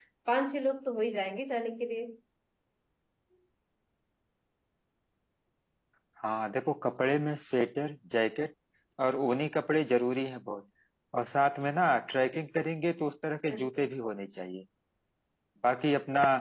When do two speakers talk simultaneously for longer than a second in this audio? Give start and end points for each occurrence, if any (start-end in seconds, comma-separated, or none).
none